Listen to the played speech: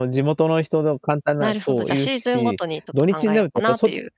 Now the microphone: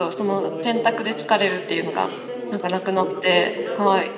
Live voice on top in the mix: Yes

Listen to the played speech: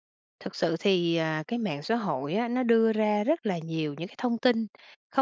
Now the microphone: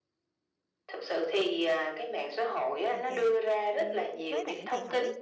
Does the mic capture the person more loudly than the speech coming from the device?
No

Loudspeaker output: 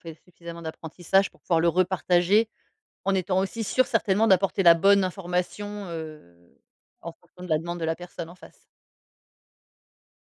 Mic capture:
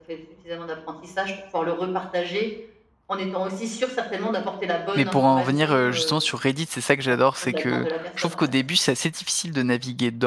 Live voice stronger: Yes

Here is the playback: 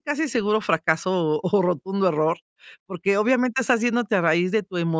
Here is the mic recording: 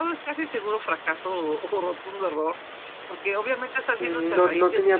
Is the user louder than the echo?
Yes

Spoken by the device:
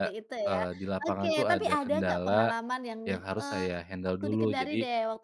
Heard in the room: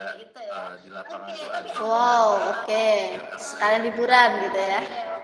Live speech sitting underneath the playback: No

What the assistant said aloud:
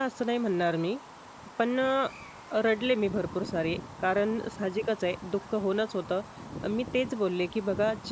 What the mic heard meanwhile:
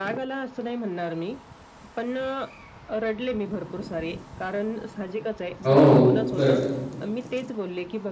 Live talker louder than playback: Yes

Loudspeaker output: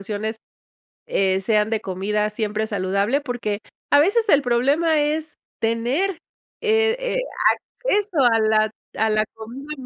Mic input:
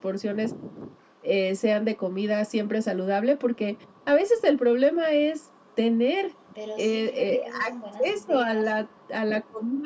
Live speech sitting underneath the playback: Yes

